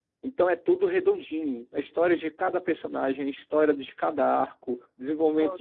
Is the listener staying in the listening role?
Yes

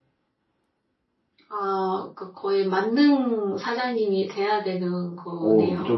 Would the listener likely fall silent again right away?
No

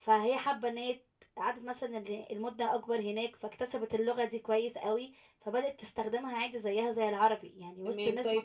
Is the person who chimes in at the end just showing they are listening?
No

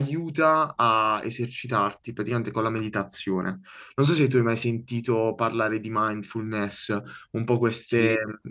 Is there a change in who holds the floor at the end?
No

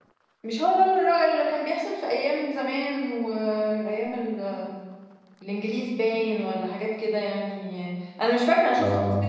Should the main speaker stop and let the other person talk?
No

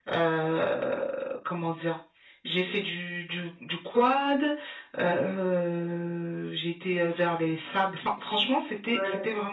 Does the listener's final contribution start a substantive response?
No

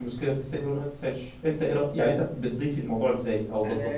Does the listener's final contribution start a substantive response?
Yes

